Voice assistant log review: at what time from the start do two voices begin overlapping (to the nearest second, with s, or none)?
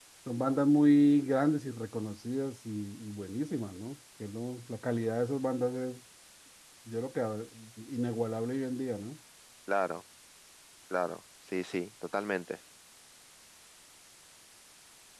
none